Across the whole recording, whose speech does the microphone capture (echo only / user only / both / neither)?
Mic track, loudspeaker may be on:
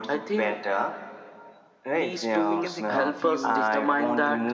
both